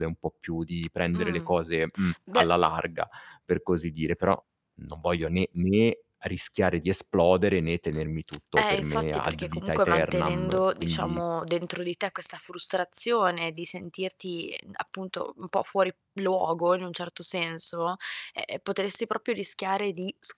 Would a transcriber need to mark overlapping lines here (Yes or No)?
Yes